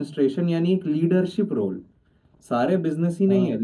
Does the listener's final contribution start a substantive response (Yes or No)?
No